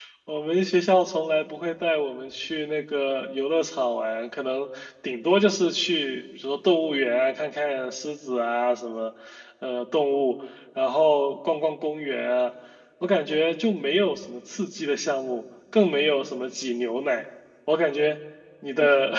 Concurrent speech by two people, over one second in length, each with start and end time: none

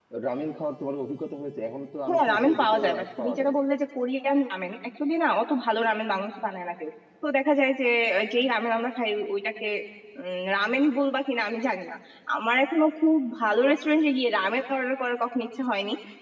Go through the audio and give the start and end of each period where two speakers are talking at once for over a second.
2.1-3.5

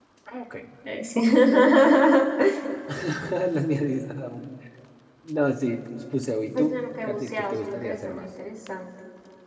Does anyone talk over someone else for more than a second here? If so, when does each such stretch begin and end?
6.5-8.3

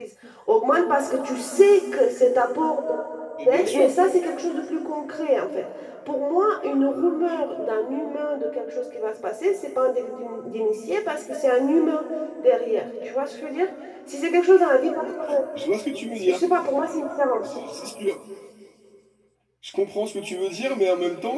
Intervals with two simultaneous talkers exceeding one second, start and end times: none

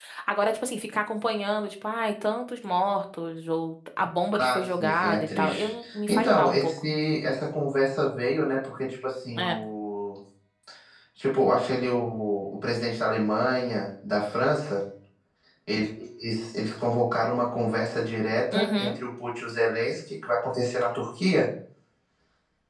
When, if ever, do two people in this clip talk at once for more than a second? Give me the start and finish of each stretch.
4.4-6.8

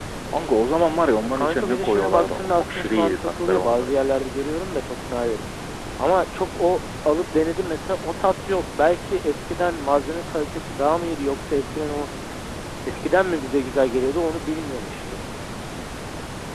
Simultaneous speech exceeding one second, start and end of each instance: 1.4-4.0

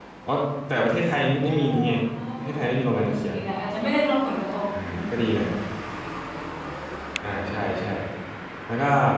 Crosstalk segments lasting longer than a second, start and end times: none

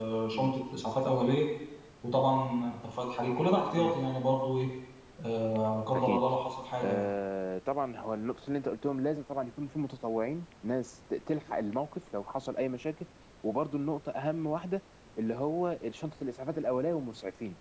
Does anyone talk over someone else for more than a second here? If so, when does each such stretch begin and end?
none

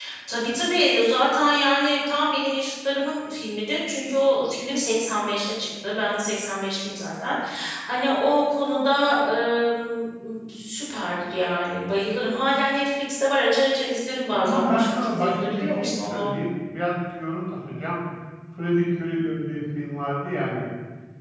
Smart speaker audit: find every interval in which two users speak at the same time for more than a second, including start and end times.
14.3-16.3

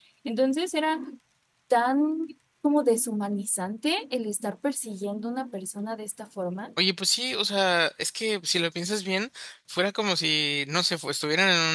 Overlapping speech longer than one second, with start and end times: none

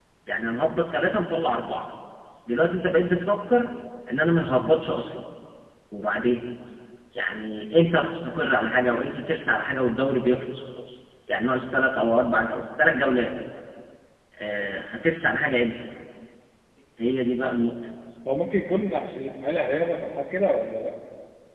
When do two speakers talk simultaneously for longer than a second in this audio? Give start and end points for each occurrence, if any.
none

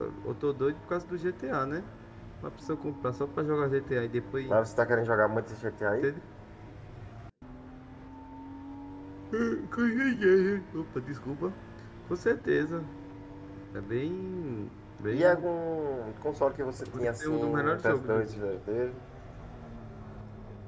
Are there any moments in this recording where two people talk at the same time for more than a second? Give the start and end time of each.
16.9-18.5

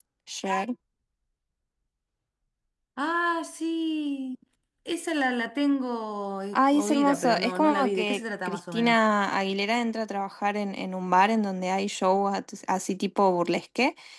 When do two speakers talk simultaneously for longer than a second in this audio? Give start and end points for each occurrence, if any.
6.5-9.0

